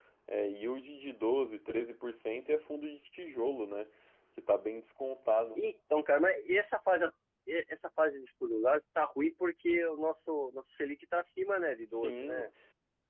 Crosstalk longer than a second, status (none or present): none